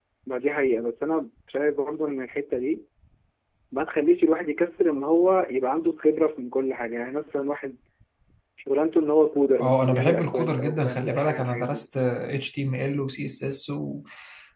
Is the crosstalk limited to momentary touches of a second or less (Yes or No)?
No